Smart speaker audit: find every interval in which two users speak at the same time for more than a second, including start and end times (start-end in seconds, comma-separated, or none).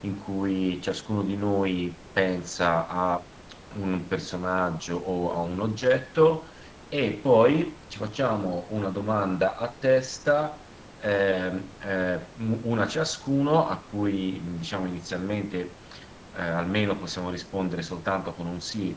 none